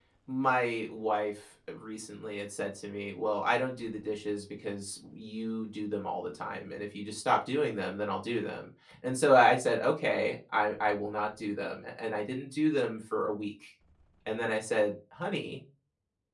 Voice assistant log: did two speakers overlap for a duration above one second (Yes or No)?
No